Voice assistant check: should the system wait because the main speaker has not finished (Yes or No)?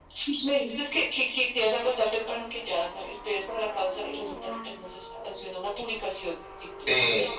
No